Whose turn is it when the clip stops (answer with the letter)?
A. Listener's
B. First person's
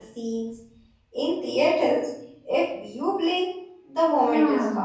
A